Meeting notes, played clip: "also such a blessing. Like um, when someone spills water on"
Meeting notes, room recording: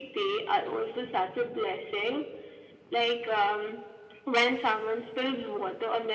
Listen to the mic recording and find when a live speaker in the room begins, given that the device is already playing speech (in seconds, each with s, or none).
none